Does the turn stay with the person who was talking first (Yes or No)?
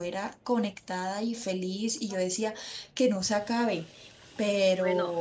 No